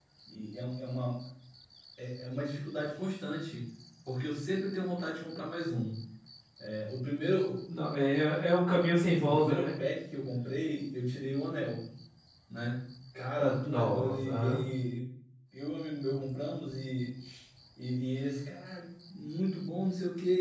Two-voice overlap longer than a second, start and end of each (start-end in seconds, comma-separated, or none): 13.4-14.6